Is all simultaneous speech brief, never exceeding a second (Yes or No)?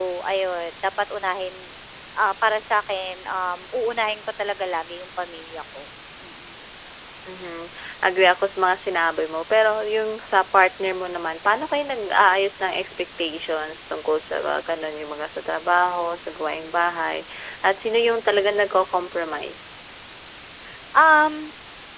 Yes